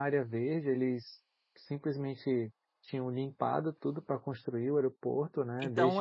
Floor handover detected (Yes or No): Yes